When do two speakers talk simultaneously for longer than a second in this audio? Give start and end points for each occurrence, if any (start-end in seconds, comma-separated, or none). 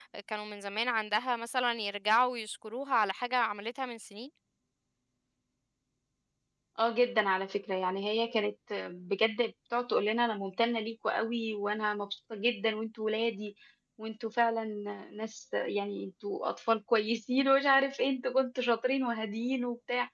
none